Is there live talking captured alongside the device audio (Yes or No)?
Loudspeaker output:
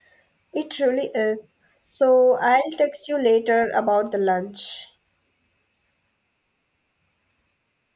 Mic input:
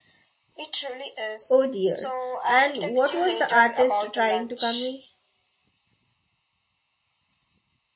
Yes